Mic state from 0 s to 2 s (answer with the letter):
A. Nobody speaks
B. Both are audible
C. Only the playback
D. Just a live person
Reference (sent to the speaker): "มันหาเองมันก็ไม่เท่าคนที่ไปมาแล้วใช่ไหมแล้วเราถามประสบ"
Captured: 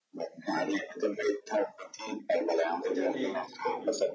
C